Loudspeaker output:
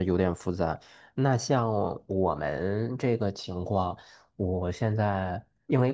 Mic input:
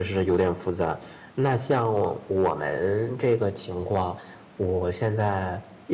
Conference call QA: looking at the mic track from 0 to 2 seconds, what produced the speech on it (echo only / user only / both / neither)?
echo only